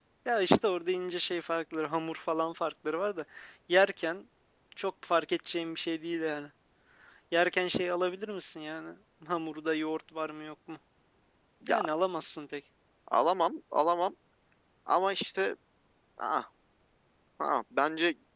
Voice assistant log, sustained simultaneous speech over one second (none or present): none